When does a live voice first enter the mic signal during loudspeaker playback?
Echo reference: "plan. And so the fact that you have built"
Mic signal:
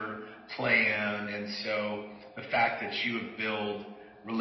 none

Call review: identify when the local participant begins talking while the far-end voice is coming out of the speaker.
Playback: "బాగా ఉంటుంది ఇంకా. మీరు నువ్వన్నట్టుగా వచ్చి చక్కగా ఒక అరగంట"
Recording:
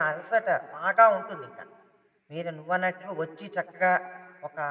none

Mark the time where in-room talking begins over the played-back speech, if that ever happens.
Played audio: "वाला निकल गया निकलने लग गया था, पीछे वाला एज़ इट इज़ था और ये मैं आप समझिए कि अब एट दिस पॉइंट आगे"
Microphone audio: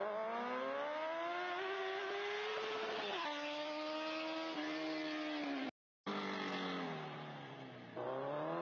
none

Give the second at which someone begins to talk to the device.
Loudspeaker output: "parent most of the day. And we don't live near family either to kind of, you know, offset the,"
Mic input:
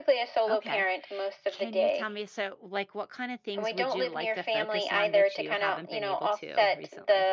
0.5 s

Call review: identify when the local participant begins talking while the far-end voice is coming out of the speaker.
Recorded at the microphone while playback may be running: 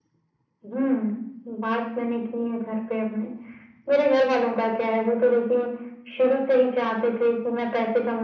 none

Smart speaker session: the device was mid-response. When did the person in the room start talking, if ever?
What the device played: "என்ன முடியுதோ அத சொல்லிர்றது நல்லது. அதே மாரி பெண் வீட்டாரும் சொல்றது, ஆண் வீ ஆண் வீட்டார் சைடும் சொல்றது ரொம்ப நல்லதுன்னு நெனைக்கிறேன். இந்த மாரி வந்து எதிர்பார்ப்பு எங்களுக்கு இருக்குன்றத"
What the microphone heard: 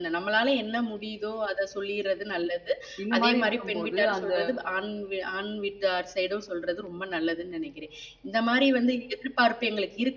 3.0 s

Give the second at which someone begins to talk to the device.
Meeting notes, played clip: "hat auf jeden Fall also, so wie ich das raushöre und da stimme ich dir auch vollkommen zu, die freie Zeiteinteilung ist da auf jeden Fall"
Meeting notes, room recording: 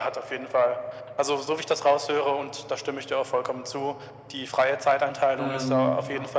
5.3 s

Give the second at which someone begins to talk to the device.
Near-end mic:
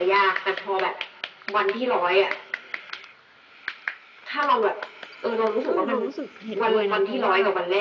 5.7 s

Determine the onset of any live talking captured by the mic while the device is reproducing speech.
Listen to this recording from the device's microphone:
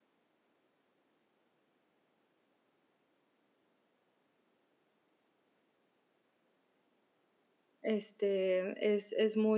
7.8 s

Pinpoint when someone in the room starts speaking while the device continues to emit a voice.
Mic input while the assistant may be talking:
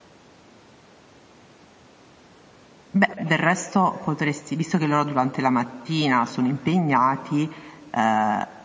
2.9 s

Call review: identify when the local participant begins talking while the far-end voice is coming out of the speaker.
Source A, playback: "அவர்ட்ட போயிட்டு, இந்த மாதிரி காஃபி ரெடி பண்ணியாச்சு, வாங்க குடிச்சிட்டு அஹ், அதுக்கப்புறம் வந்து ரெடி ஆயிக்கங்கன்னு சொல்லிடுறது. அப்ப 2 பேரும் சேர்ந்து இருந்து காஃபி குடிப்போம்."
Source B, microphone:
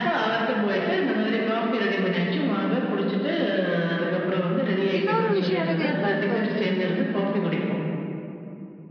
5.0 s

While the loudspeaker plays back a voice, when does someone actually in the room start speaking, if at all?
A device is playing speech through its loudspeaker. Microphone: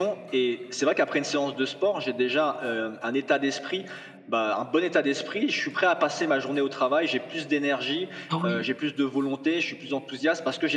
8.3 s

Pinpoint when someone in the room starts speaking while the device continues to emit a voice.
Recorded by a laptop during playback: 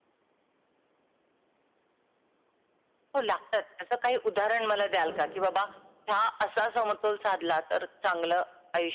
5.0 s

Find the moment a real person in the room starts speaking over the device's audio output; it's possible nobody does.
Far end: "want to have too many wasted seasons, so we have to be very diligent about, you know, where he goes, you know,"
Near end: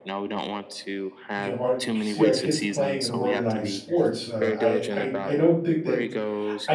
1.3 s

